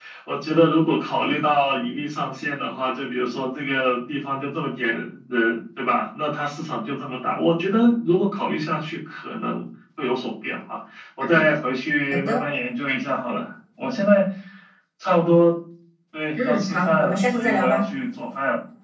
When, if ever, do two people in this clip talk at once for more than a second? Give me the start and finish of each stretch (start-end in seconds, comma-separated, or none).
16.4-17.9